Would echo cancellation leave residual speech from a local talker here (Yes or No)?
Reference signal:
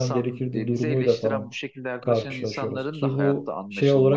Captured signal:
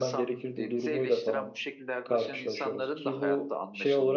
No